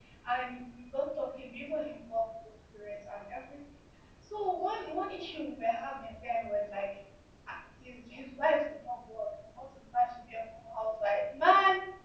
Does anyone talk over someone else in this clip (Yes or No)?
No